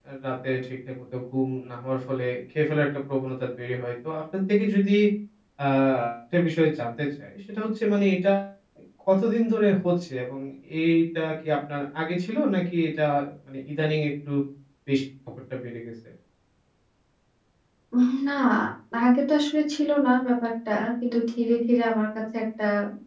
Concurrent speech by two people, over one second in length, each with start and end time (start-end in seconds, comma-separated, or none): none